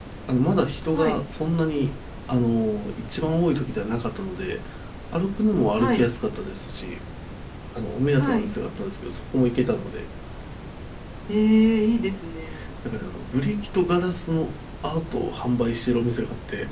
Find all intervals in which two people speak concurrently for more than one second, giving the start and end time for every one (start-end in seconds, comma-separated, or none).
none